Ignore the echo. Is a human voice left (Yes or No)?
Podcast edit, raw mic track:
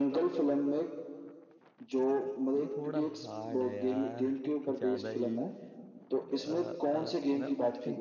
Yes